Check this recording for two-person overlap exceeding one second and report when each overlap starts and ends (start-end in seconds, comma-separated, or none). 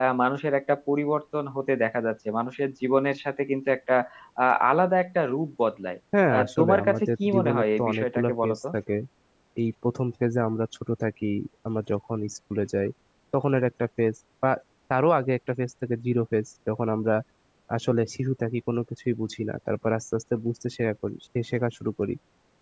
6.3-8.6